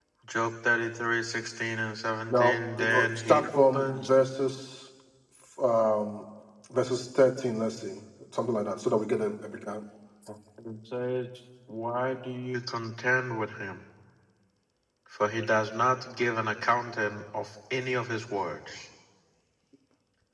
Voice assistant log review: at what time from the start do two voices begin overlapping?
2 s

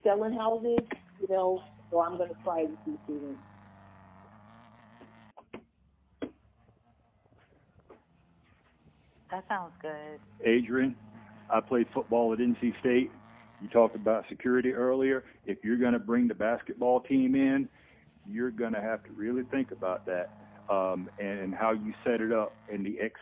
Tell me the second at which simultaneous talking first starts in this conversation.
none

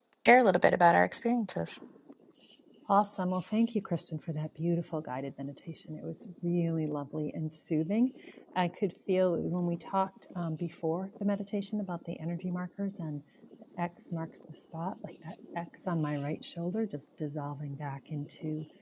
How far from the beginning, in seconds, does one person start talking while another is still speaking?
none

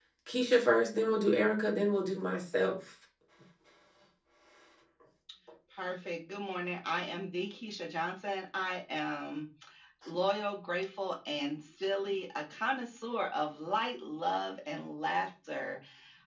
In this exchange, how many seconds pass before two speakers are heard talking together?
none

